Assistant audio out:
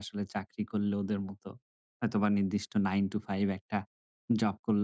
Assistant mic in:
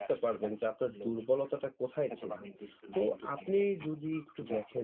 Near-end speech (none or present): present